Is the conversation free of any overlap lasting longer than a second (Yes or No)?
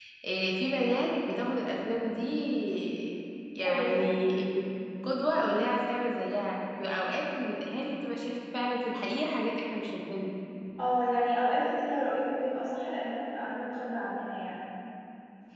Yes